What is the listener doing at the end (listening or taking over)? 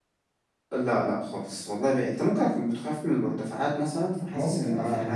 taking over